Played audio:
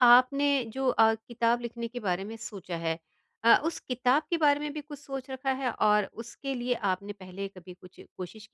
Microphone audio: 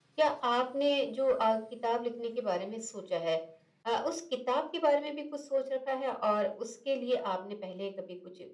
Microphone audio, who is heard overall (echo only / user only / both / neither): echo only